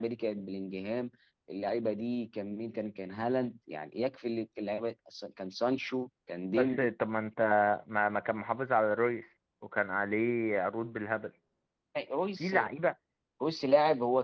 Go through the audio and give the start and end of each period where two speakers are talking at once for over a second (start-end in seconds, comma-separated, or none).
none